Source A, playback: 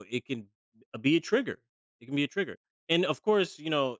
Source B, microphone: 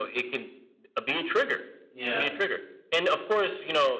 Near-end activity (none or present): present